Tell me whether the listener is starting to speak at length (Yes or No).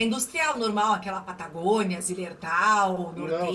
Yes